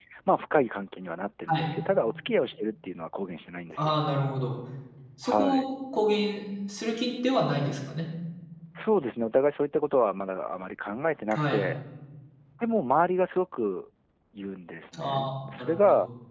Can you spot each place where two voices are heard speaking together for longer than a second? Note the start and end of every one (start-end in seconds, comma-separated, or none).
none